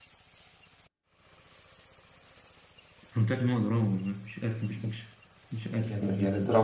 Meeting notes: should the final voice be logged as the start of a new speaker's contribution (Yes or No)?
Yes